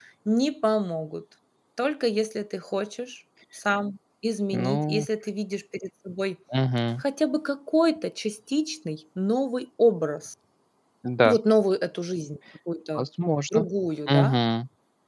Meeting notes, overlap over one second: none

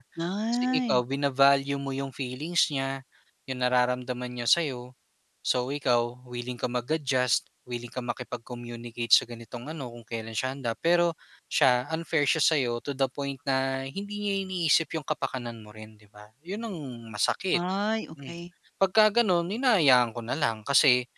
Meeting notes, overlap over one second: none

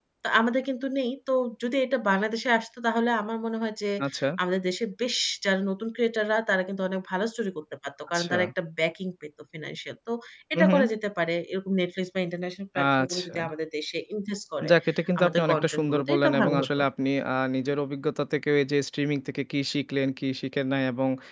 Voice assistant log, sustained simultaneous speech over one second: present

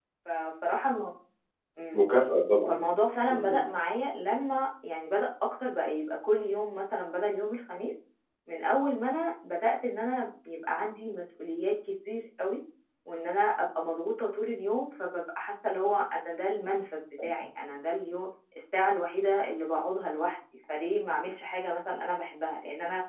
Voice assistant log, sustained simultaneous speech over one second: none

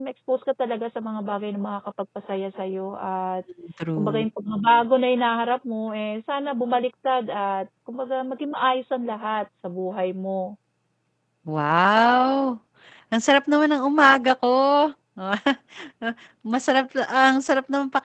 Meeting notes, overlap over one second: none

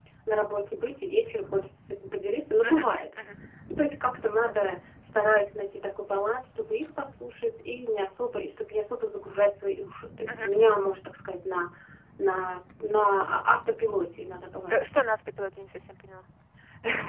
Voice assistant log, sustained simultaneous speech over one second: none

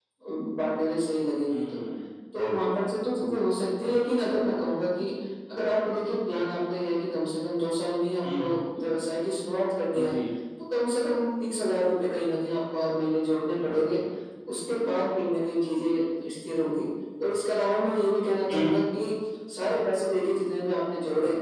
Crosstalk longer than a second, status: none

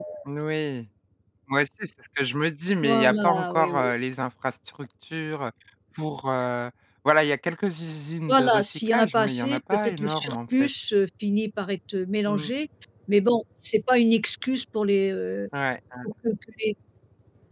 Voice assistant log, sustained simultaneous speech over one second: present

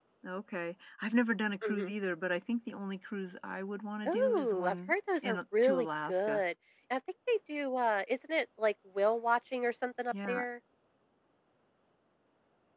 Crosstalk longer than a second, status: present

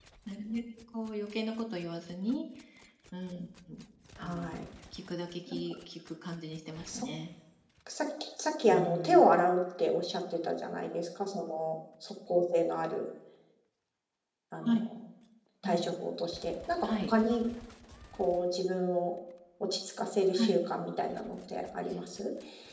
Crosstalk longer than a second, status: none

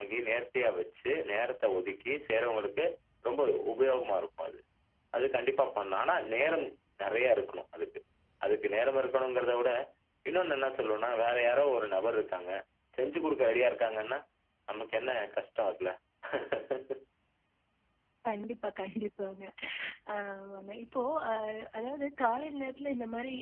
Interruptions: none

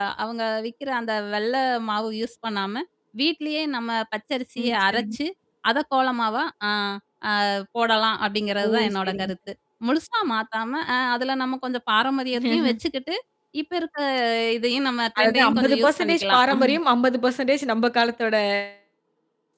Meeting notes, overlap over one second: present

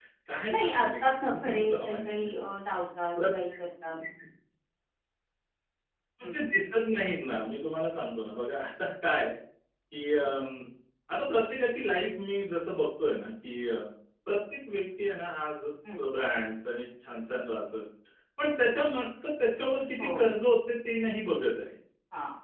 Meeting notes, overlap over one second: present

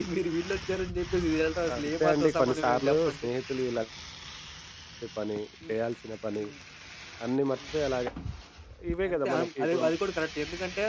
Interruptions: present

